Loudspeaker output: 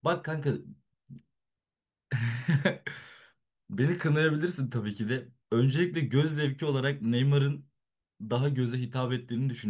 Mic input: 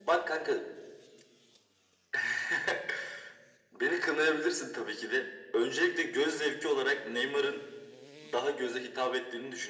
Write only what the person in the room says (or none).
none